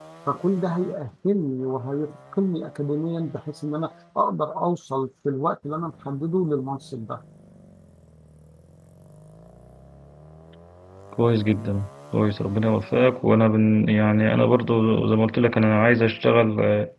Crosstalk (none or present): none